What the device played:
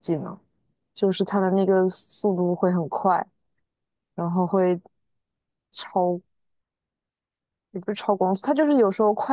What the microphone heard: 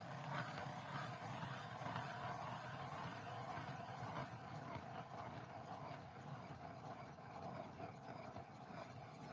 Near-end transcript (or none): none